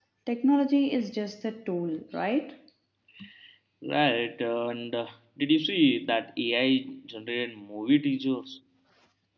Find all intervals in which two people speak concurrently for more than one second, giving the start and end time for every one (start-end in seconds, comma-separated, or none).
none